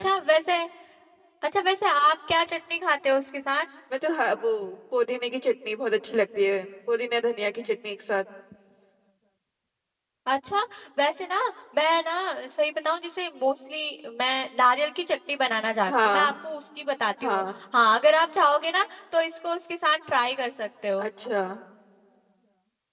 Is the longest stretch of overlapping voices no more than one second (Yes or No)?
Yes